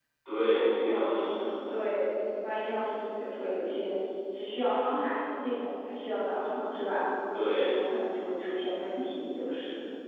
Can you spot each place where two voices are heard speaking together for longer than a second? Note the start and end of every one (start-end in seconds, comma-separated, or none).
0.5-1.8